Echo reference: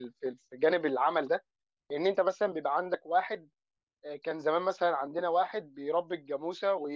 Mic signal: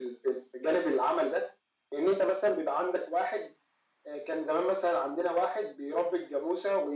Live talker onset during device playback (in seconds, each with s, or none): none